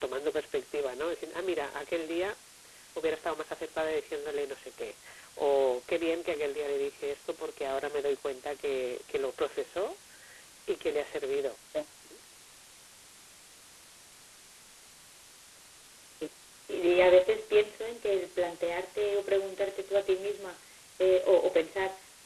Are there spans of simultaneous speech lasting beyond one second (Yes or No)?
No